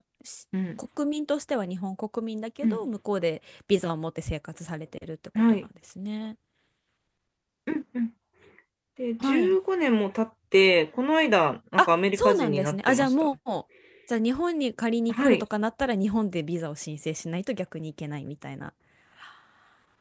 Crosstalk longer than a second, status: present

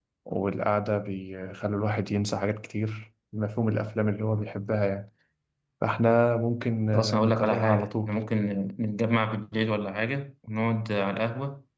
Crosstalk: present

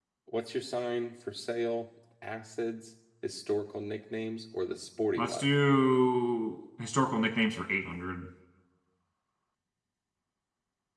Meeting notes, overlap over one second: none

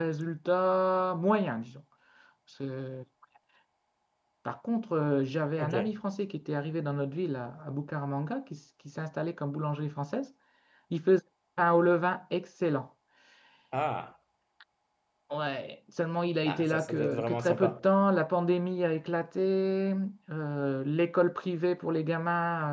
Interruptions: present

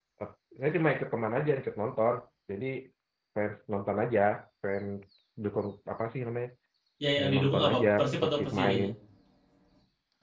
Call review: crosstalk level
present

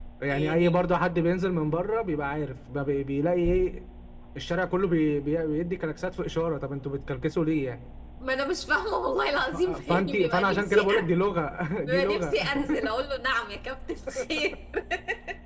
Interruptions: present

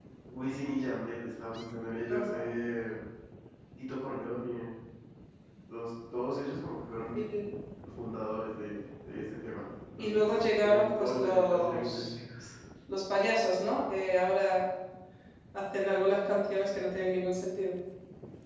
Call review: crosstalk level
present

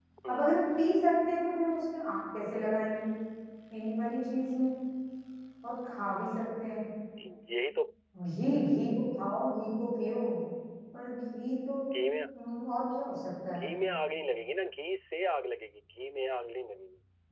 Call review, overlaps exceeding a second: none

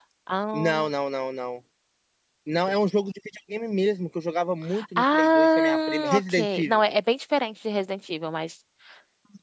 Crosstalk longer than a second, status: present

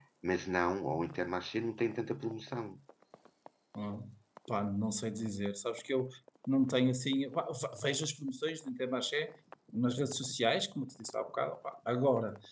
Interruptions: none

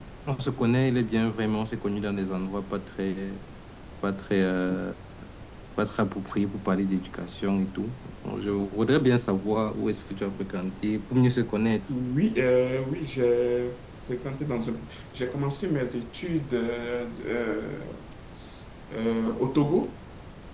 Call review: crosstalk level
none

